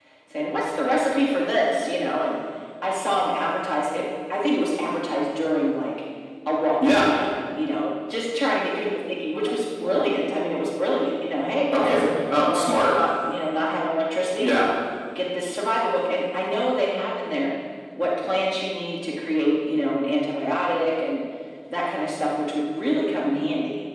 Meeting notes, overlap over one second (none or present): none